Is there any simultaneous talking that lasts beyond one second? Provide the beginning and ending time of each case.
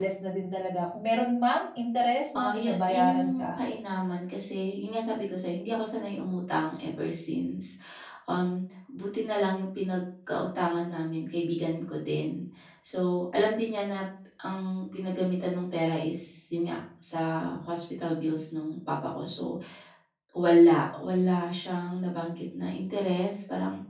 2.3-3.6

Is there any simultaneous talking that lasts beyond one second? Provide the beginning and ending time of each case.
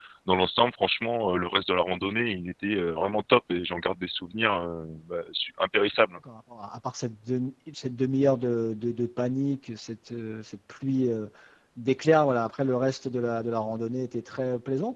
none

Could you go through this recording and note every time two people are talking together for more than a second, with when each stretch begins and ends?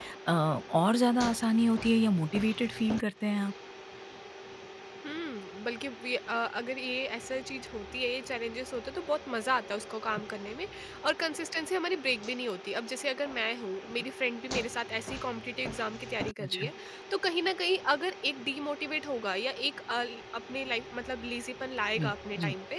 none

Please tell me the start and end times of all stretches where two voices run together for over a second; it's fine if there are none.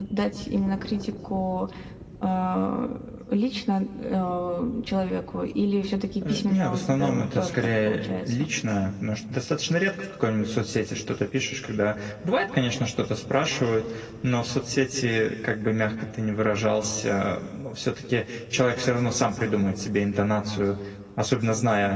6.3-8.4

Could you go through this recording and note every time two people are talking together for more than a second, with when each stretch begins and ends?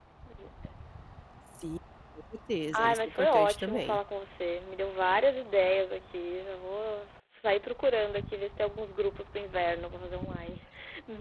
2.7-4.0

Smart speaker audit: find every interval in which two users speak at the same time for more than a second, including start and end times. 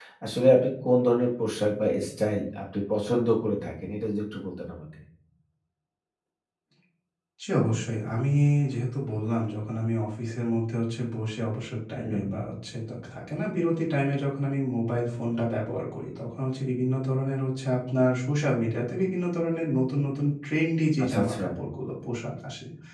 none

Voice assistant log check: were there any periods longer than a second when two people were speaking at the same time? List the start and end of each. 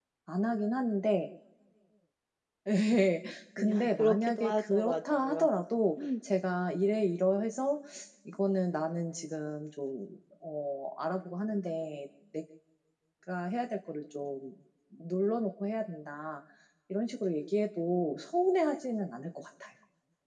3.6-5.5

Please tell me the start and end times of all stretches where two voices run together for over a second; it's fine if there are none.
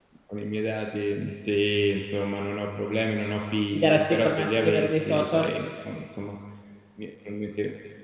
3.7-5.5

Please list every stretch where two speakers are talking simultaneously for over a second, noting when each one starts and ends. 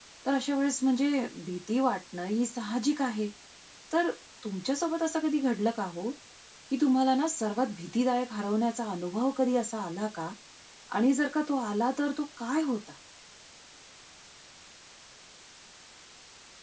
none

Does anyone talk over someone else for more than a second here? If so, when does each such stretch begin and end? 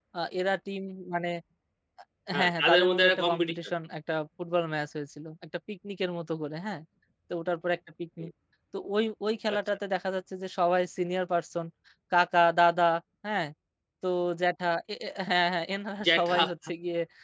2.4-3.6

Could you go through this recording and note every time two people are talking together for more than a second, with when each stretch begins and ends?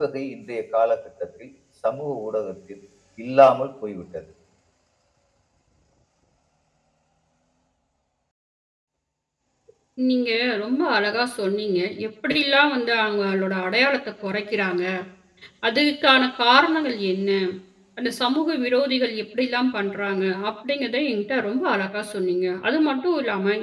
none

